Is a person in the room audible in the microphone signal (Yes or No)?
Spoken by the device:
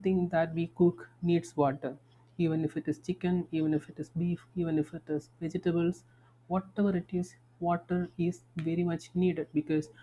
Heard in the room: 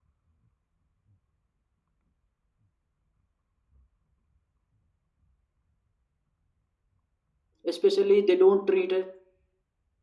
Yes